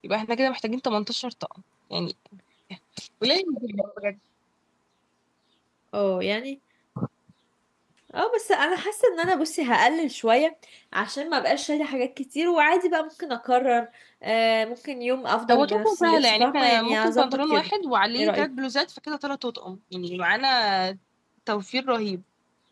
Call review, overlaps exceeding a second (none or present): present